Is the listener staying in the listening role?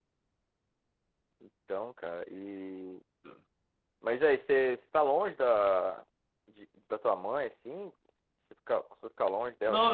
No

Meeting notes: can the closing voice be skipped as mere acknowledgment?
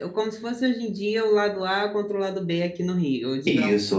No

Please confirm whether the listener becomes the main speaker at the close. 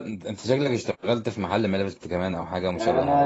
Yes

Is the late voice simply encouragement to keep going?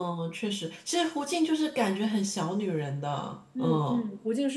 No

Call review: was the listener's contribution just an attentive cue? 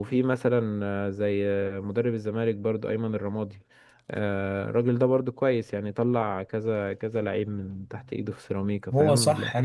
No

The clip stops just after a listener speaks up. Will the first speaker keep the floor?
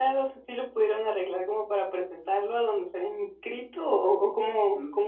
No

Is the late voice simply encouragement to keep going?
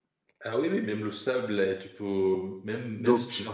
Yes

